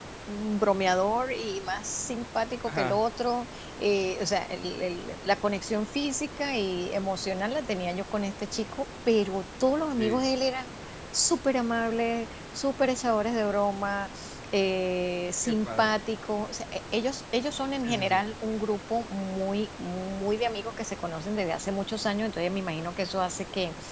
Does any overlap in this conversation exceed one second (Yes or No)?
No